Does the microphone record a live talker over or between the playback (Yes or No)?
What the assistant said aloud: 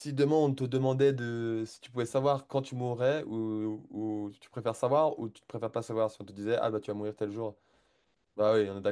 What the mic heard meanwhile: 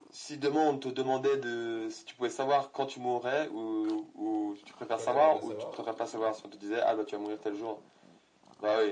Yes